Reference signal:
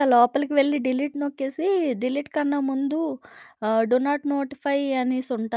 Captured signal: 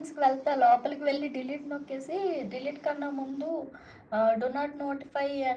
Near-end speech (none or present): none